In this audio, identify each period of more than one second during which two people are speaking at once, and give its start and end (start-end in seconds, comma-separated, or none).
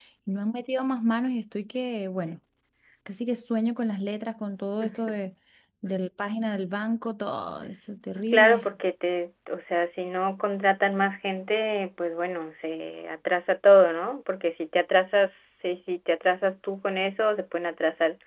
none